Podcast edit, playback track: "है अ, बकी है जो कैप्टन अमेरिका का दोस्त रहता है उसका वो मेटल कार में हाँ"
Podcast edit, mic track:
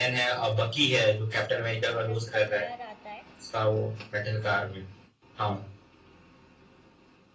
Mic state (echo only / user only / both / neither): both